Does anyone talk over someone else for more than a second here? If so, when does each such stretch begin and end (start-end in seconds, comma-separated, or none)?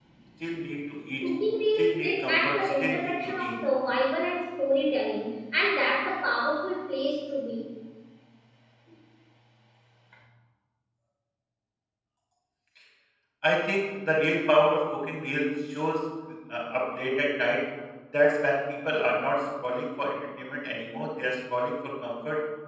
1.8-3.6